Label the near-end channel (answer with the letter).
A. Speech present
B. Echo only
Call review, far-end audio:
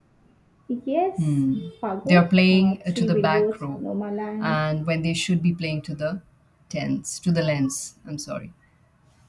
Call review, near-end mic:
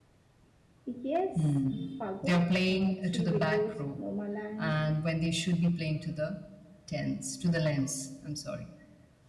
B